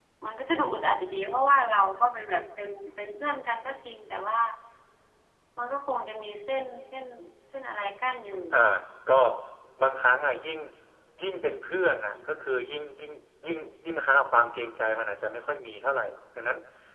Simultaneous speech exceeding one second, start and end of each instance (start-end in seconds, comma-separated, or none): none